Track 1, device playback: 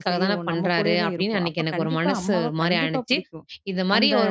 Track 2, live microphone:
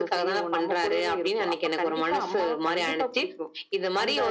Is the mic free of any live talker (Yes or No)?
Yes